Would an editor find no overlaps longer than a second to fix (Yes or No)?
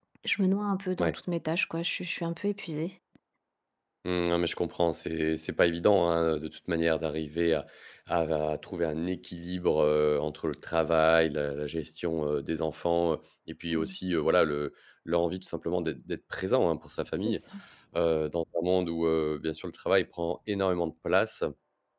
Yes